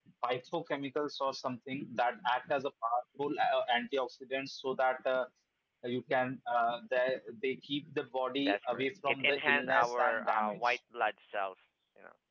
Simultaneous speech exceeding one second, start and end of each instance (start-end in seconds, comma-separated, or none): 8.4-10.8